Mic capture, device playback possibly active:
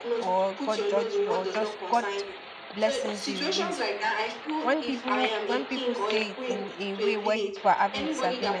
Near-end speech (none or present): present